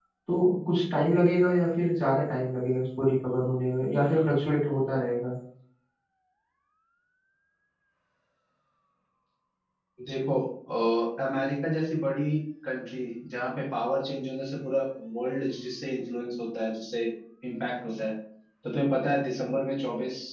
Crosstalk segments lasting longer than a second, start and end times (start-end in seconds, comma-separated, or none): none